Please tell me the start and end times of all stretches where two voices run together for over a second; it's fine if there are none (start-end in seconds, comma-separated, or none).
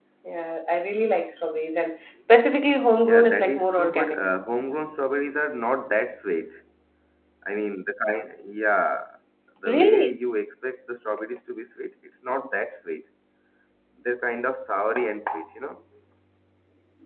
3.0-4.2